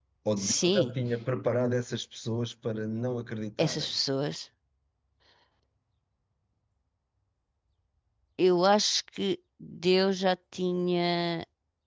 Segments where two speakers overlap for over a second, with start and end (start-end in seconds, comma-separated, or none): none